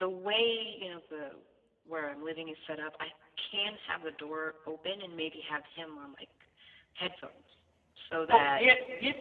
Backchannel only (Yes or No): No